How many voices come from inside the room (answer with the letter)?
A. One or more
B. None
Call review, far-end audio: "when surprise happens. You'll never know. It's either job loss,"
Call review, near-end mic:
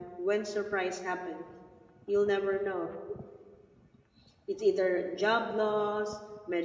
B